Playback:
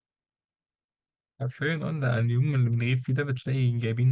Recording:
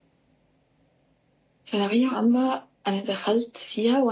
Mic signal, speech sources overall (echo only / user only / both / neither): user only